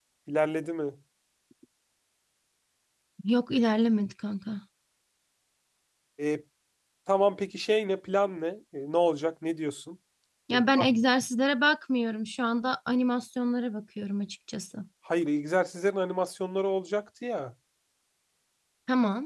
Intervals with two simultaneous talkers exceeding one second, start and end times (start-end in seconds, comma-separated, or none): none